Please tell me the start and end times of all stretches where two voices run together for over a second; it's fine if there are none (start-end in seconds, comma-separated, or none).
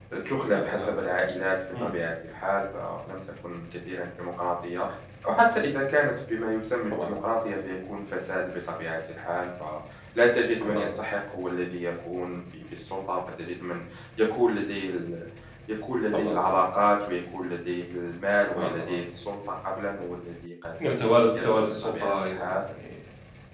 21.4-22.6